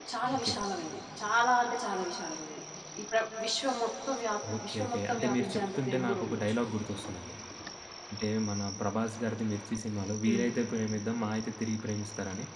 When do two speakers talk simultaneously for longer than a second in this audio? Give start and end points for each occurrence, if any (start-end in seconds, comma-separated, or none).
4.6-6.6